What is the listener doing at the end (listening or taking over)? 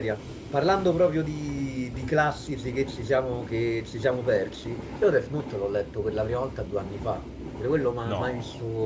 listening